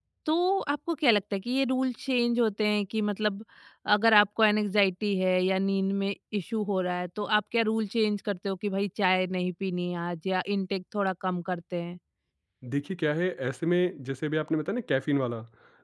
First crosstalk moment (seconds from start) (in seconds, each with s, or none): none